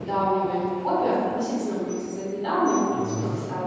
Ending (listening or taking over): listening